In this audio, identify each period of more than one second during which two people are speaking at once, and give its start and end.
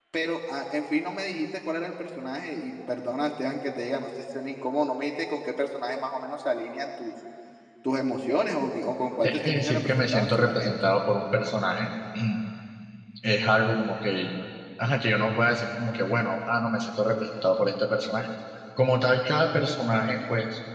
9.2-10.7

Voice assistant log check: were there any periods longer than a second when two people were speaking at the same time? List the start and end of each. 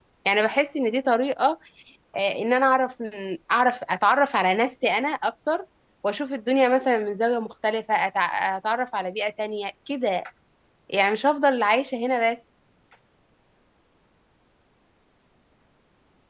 none

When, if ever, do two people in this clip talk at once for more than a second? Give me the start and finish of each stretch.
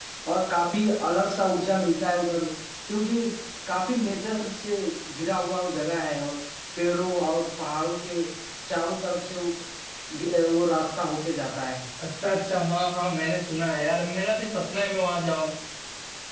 none

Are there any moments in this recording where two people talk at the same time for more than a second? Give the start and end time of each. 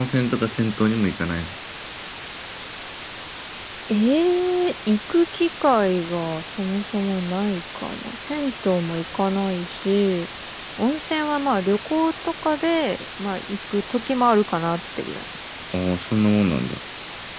none

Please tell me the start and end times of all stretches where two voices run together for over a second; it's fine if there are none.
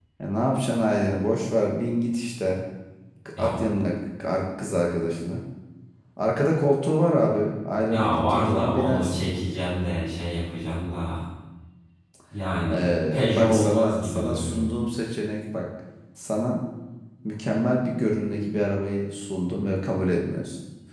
7.9-9.3, 12.7-14.7

